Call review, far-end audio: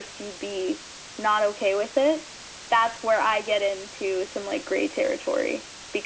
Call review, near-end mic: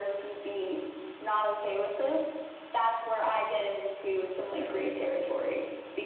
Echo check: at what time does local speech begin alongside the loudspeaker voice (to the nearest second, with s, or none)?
5 s